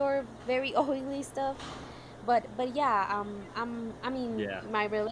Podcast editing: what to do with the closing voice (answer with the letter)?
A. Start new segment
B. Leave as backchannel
B